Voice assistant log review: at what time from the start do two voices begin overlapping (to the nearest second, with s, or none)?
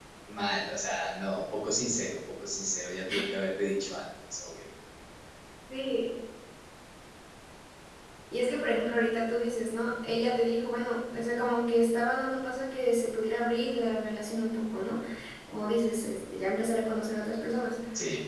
none